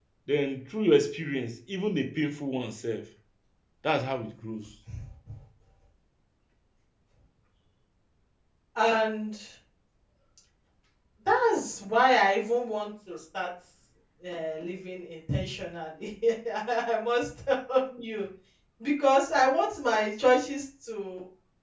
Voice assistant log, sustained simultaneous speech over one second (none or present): none